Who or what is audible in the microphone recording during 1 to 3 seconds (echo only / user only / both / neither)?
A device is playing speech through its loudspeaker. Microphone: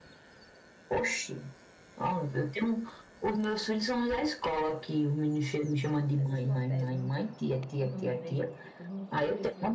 echo only